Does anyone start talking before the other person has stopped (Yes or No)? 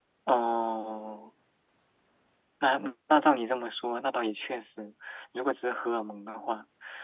No